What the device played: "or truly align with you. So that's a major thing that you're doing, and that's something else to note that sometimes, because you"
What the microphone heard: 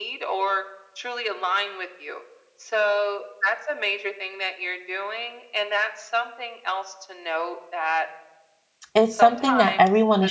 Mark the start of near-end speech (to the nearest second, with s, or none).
9 s